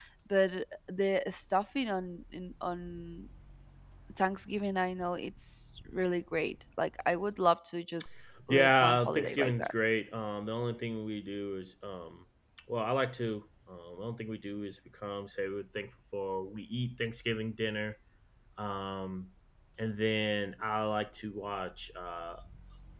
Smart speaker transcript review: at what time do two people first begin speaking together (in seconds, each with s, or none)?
8.5 s